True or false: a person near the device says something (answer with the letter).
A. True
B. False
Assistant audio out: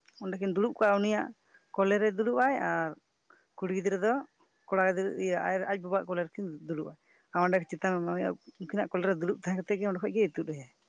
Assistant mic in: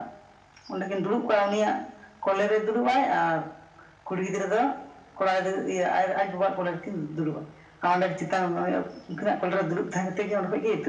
B